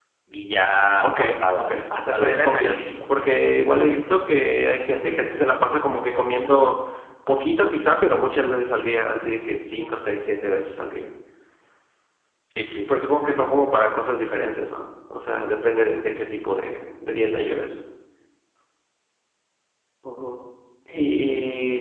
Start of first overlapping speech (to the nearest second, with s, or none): 1 s